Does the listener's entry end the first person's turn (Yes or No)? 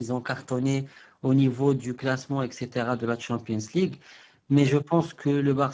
No